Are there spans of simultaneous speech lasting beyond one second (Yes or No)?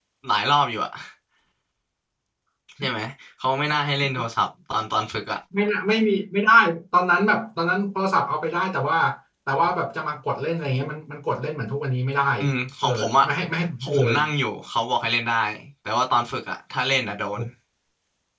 No